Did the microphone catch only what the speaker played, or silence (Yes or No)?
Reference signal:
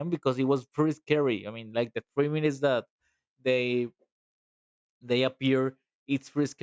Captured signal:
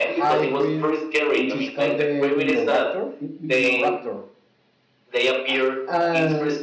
No